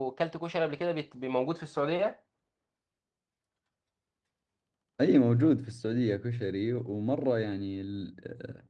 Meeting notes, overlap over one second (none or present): none